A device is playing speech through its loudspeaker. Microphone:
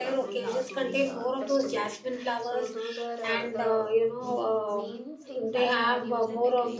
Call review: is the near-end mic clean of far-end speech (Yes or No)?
No